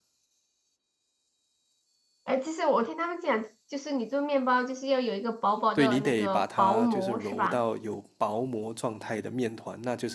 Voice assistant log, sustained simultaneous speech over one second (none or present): present